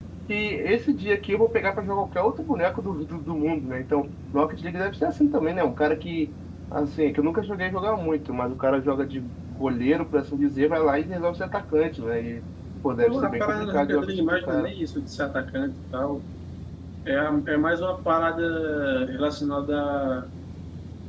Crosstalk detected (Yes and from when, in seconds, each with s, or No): Yes, from 13.0 s